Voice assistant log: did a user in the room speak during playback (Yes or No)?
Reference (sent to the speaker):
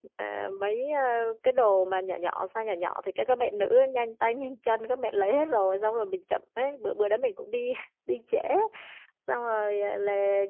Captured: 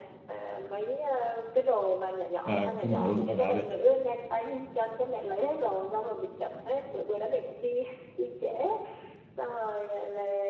Yes